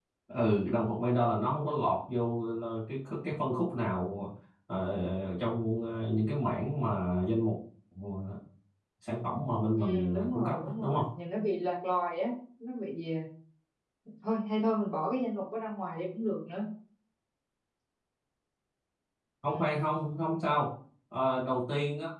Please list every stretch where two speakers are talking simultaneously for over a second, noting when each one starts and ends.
9.8-11.1

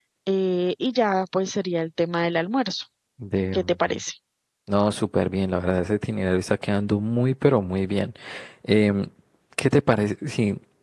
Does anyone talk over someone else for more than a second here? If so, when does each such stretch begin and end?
none

